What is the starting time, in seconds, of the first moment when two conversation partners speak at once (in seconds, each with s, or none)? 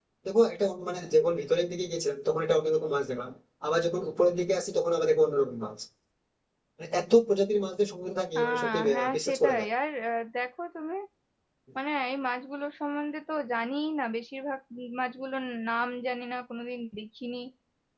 8.3 s